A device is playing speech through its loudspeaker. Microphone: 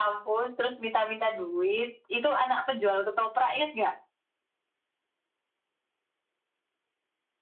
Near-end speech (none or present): none